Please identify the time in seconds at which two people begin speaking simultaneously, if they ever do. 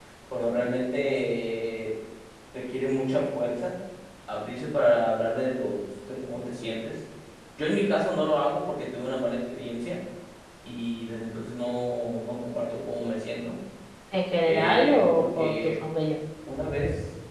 14.4 s

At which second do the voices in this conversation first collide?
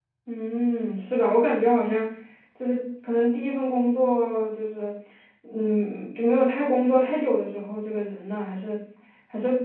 none

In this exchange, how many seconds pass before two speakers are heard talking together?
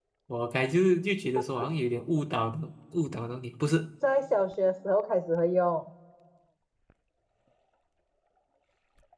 none

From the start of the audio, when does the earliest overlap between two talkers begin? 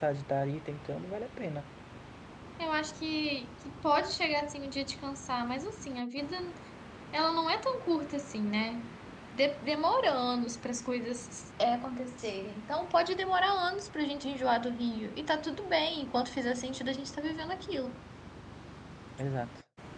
none

